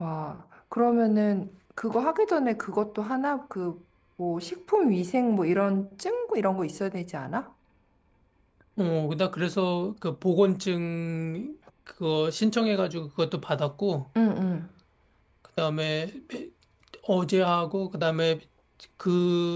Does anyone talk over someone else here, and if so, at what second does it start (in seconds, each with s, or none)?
none